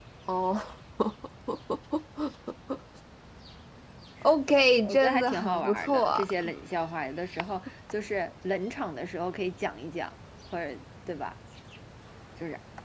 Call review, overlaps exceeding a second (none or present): present